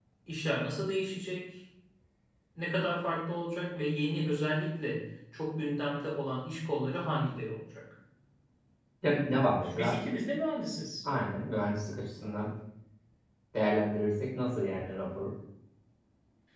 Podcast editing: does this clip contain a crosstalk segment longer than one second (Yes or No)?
No